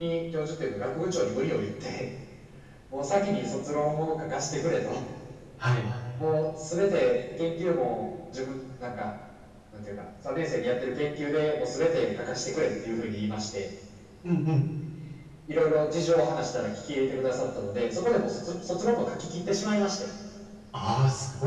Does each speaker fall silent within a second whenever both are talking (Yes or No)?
Yes